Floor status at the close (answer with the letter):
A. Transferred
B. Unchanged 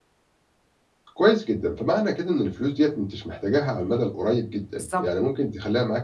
B